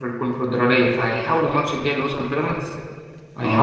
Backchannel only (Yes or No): No